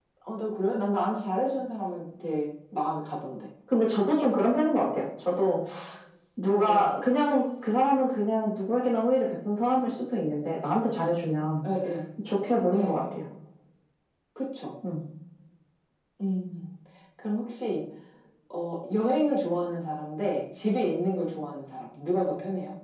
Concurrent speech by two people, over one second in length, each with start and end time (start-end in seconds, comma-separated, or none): none